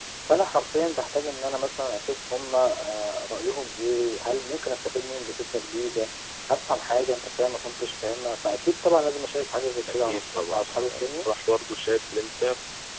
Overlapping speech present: Yes, from 9.9 s

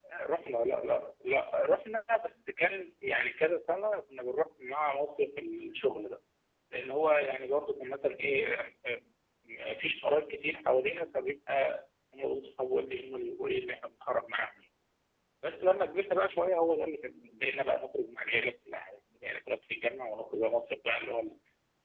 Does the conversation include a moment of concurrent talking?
No

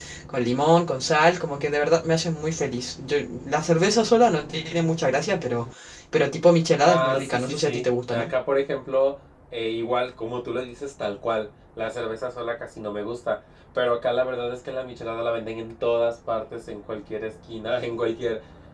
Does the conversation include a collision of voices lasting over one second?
Yes, from 6.8 s

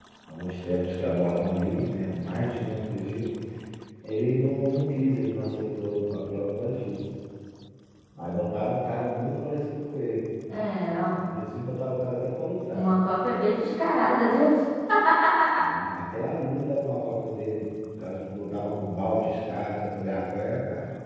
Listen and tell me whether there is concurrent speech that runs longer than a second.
No

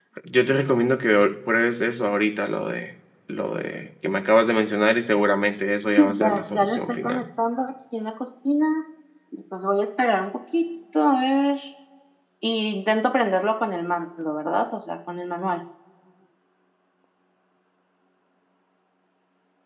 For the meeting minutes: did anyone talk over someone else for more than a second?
Yes, from 6.0 s

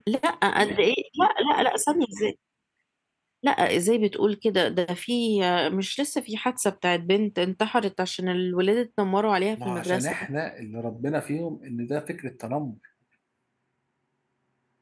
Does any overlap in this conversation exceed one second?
No

